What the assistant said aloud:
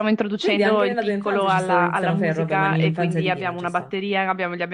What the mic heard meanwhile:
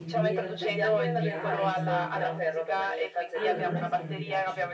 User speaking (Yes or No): Yes